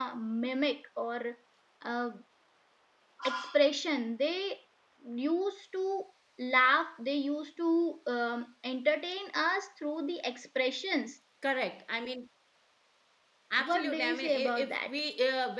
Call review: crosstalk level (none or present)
present